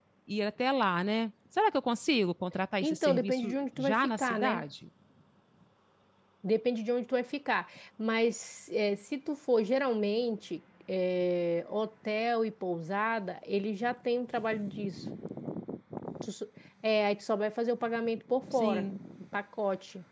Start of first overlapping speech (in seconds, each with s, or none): 2.8 s